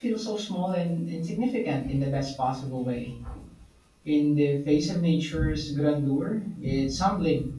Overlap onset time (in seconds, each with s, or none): none